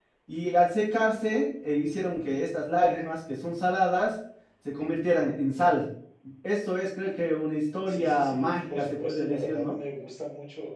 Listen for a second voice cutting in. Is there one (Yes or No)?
Yes